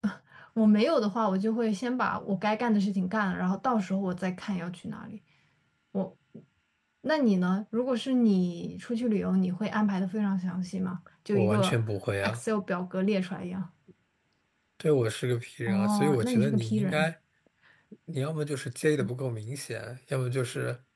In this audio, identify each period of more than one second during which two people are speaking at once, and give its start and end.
15.7-17.1

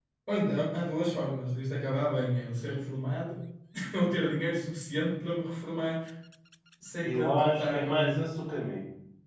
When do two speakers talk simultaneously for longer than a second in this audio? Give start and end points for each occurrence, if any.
7.0-8.3

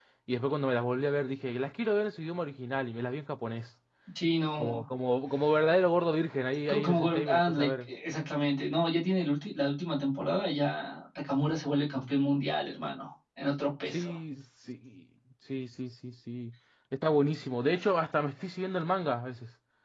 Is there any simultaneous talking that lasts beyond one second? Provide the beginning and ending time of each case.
6.7-7.9

